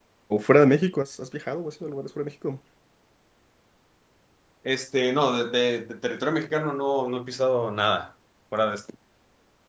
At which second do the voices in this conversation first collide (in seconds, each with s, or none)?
none